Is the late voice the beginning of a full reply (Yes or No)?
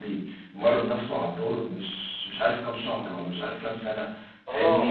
No